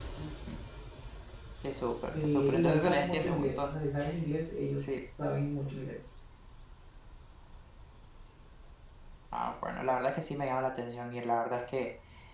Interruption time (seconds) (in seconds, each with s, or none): 2.2 s